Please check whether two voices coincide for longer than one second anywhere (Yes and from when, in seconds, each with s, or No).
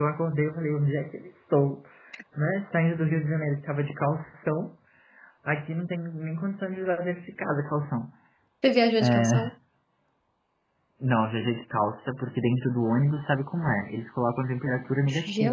No